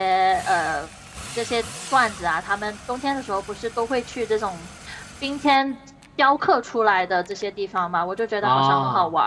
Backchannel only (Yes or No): Yes